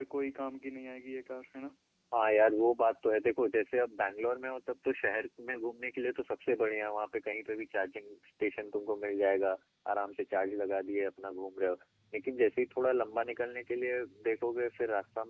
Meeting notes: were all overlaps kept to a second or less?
Yes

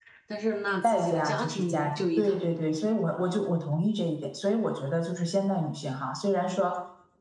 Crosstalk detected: Yes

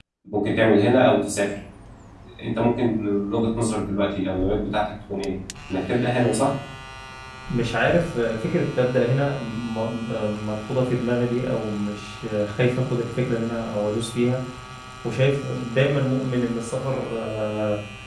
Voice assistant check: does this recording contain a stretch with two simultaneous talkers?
No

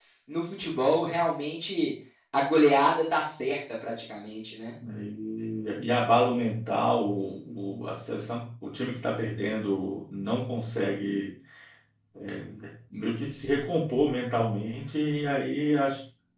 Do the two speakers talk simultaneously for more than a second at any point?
No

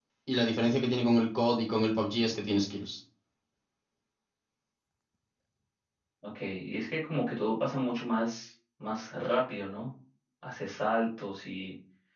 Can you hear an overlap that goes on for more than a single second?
No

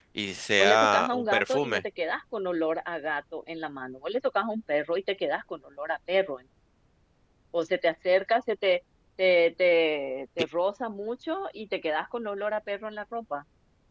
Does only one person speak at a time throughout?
No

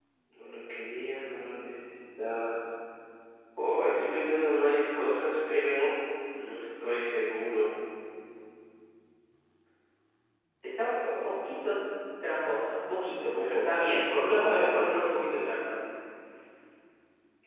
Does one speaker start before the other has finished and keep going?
Yes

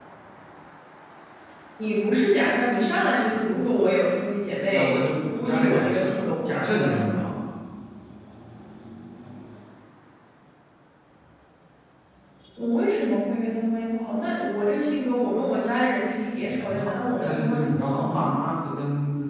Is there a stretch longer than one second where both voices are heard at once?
Yes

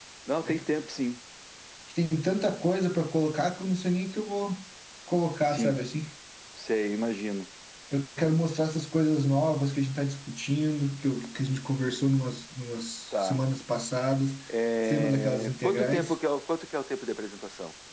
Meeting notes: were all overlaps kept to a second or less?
No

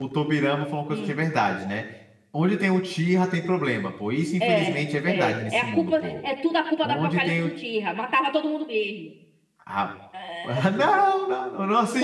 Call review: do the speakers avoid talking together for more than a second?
No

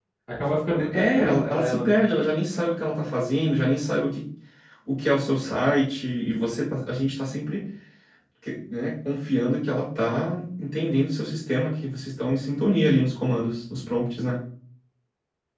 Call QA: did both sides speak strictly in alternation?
No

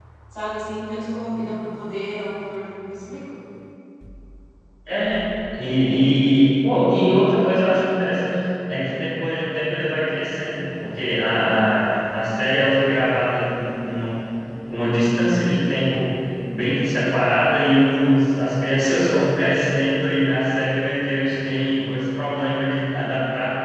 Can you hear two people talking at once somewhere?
No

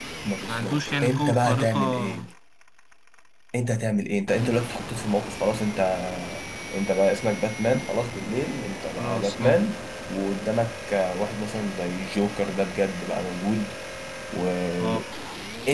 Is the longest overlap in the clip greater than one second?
Yes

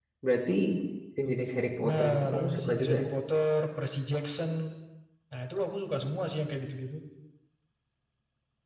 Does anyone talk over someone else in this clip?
Yes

